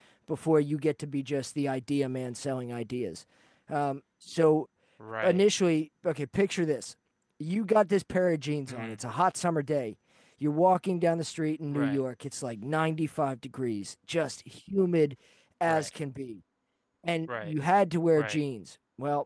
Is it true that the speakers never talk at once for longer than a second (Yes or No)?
Yes